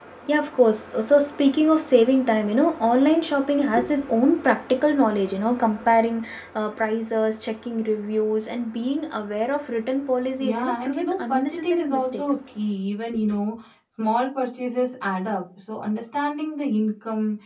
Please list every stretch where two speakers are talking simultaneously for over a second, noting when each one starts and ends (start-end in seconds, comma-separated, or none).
10.4-12.2